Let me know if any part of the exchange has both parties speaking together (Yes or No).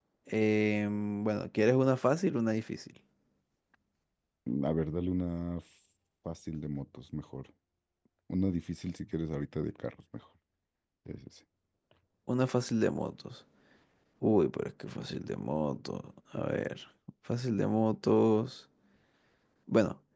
No